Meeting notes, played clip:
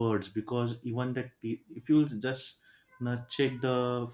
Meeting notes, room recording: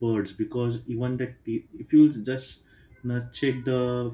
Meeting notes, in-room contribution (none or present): none